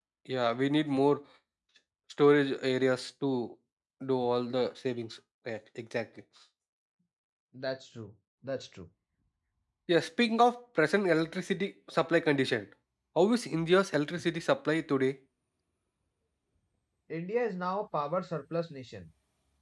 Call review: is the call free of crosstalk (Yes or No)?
Yes